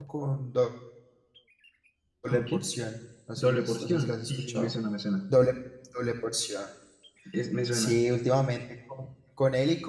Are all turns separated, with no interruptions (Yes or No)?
No